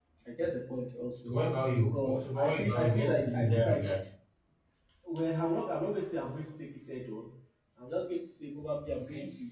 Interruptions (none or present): present